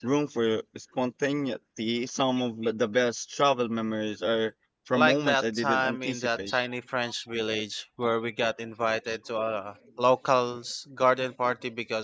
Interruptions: present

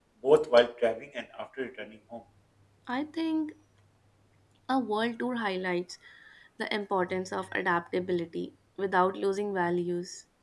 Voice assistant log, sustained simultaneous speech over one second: none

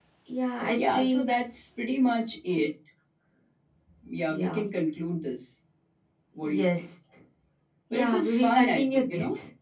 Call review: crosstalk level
present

